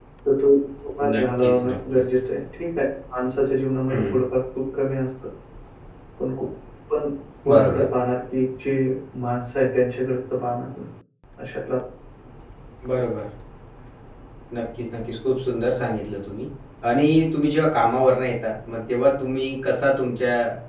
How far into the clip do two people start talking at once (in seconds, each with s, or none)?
1.0 s